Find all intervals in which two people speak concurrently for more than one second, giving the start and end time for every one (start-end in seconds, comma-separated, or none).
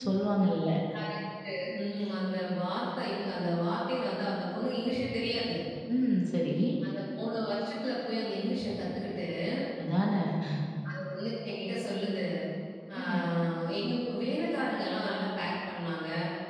none